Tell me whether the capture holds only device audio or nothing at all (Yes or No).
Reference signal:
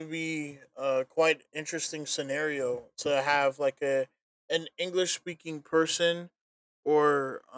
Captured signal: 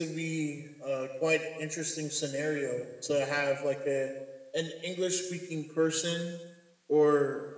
Yes